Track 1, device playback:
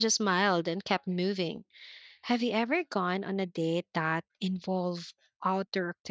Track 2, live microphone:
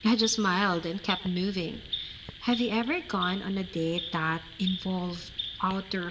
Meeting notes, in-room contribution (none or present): none